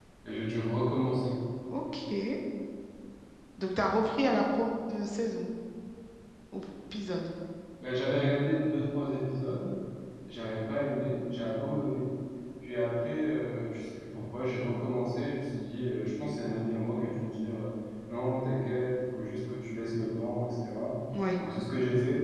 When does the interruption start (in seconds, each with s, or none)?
none